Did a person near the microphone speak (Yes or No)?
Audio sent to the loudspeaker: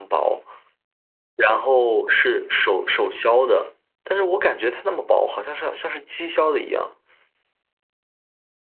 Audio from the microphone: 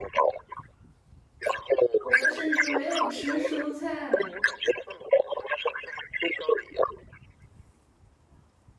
Yes